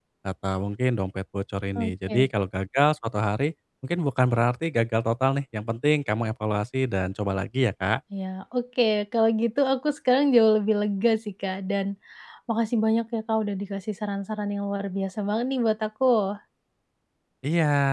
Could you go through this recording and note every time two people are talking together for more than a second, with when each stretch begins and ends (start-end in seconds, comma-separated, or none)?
none